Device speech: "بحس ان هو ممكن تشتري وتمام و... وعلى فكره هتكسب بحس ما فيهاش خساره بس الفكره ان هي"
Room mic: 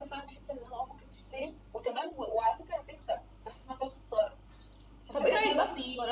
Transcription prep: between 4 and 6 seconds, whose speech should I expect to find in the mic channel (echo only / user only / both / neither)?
both